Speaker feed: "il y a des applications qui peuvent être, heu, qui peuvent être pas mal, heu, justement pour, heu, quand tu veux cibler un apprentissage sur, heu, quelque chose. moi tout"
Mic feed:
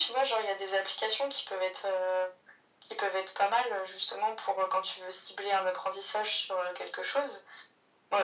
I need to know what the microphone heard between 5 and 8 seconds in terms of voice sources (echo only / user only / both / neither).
echo only